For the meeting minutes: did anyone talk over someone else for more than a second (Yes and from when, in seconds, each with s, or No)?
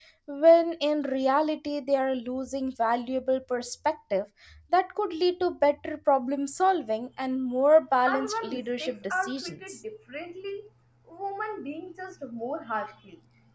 Yes, from 8.1 s